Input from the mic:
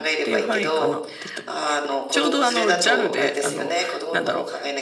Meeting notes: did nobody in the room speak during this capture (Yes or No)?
No